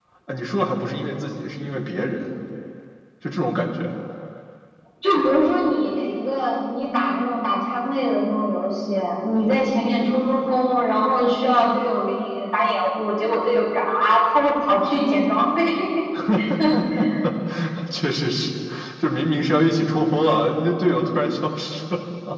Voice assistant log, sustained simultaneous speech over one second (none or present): none